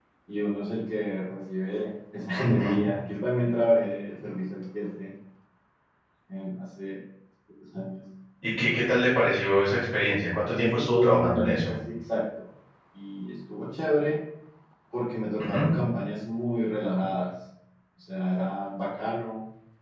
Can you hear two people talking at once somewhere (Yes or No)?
Yes